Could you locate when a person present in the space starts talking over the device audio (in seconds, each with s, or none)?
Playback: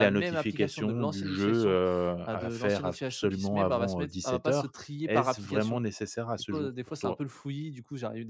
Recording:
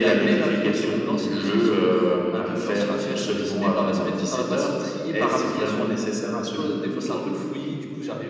none